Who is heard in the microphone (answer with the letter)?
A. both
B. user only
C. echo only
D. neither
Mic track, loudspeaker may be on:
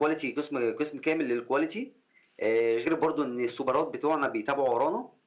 C